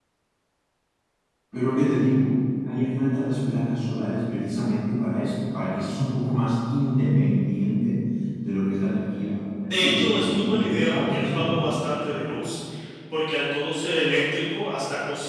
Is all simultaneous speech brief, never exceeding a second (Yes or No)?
No